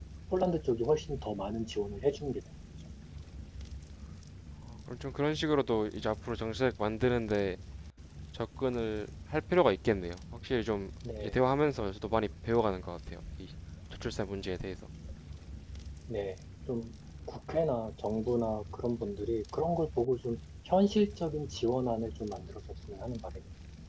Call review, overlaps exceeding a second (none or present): none